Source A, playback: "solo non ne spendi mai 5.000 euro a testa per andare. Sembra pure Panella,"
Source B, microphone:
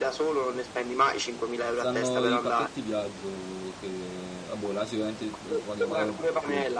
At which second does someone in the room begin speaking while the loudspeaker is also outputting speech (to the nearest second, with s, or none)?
2 s